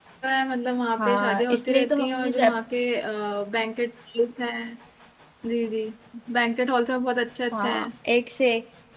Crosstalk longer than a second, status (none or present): present